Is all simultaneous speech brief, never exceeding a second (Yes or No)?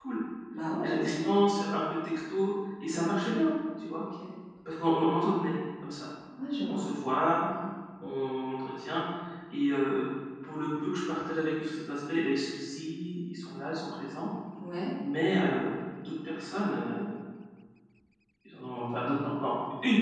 Yes